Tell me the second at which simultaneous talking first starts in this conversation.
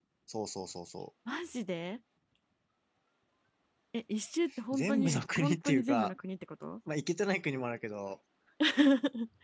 4.7 s

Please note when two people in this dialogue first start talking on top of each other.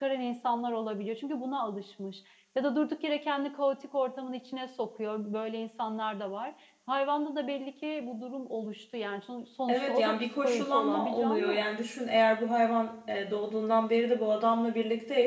9.7 s

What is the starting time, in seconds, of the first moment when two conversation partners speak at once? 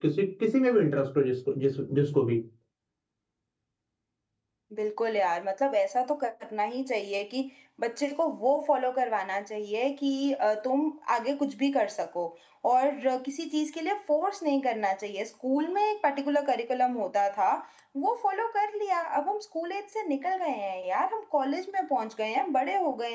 none

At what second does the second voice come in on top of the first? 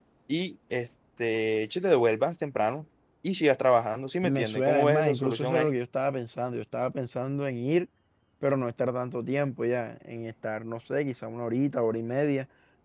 4.2 s

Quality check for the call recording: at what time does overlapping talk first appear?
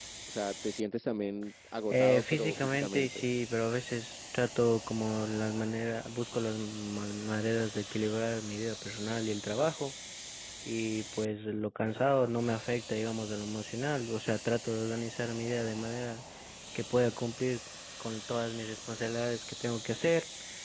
1.9 s

